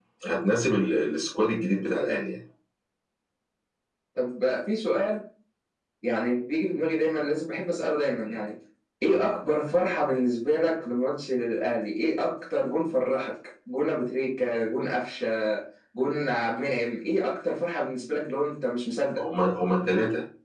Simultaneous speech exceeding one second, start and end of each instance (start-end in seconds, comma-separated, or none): none